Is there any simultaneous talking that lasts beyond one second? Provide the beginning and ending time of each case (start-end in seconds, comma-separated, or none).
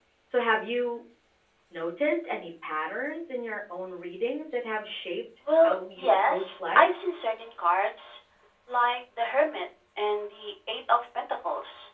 5.6-6.9